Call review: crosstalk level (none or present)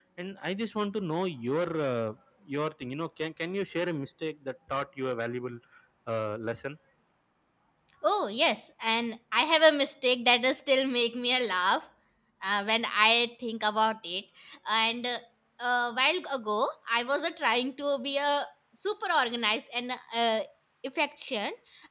none